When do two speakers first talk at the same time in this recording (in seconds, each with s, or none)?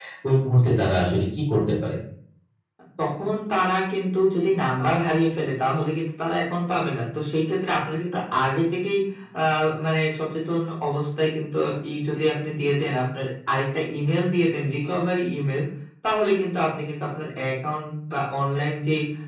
none